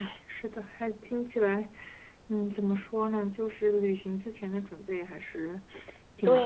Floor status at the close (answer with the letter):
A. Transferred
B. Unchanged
A